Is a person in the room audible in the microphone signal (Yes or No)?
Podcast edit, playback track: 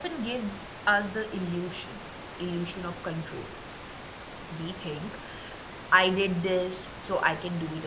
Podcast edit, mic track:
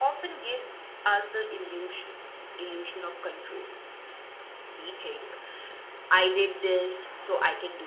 No